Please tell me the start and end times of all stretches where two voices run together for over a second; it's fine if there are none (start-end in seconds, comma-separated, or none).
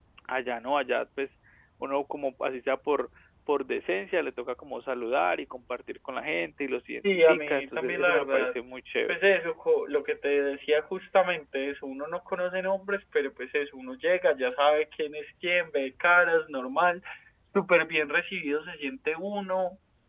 7.0-8.5